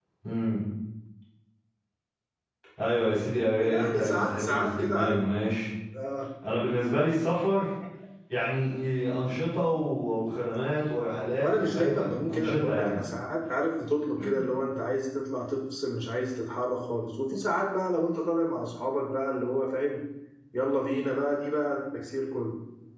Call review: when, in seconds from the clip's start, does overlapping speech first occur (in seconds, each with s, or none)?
3.7 s